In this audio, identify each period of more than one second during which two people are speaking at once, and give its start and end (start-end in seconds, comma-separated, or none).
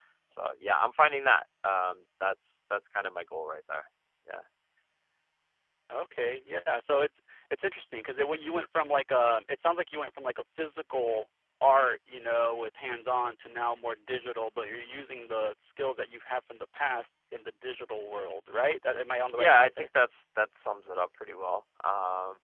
none